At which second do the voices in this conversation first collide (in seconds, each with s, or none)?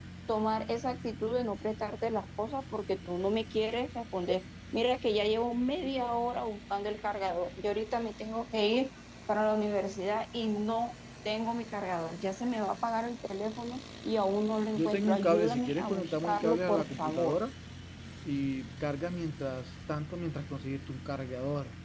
14.8 s